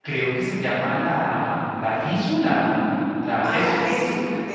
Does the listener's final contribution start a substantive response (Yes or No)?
Yes